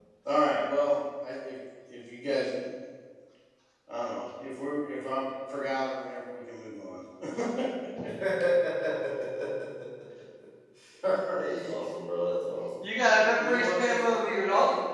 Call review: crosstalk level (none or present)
present